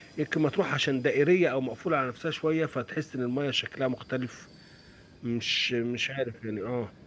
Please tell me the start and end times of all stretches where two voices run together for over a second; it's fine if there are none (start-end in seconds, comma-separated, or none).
none